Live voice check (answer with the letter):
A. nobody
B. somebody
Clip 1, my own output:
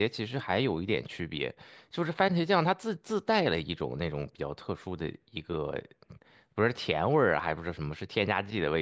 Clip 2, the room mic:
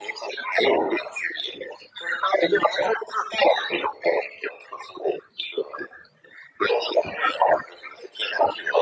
A